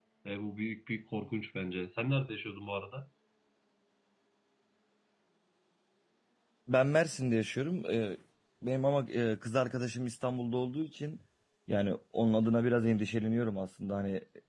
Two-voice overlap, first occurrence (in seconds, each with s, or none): none